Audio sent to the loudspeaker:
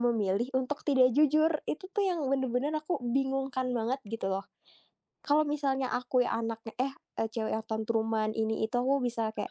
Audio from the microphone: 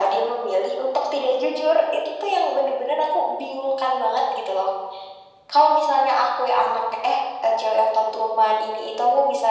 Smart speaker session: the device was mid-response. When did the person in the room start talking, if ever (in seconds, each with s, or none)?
none